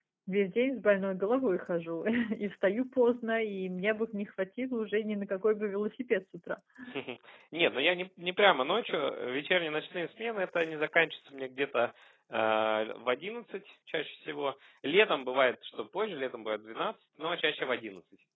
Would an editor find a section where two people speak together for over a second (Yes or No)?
No